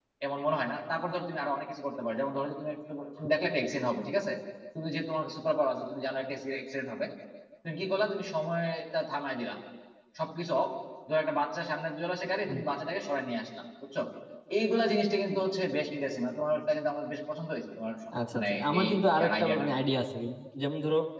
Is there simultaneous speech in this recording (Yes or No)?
Yes